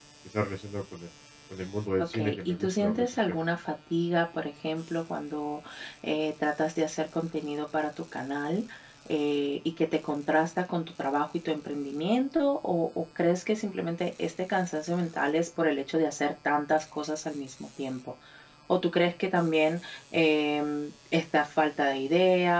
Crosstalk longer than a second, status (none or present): present